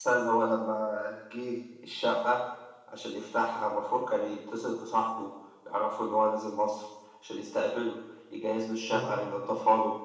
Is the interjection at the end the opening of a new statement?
No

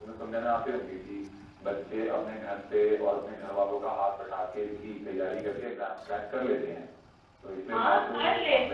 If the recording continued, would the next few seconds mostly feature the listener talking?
Yes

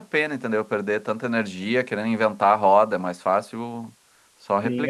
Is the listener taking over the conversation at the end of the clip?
Yes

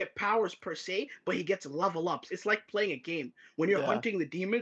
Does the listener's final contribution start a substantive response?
No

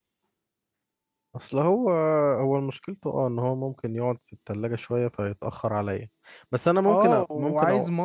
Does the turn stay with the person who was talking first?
No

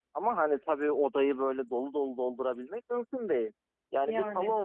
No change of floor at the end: Yes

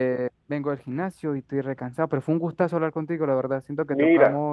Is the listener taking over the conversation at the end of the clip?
No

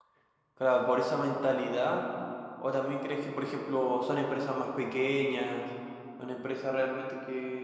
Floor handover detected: No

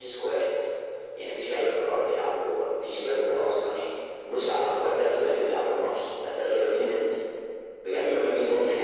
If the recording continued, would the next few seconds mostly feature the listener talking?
Yes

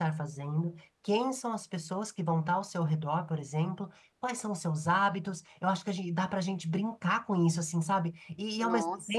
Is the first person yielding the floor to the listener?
No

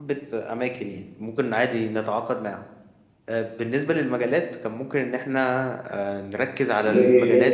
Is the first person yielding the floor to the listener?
No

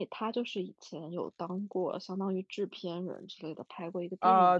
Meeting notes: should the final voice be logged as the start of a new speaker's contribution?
Yes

